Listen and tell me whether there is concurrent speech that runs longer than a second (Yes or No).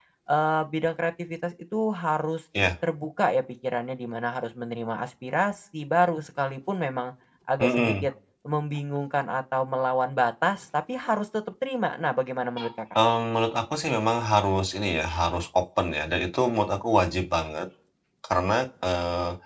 No